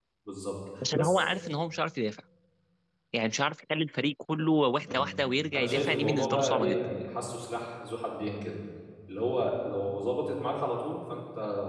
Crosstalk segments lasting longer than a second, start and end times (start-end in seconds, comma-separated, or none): 5.5-6.8